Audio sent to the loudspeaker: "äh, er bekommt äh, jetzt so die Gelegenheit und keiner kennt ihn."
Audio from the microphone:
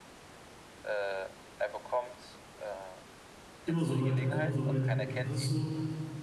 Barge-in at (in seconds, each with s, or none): 3.6 s